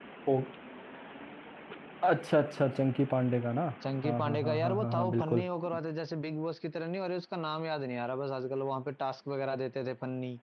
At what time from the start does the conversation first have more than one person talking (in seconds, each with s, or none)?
4.0 s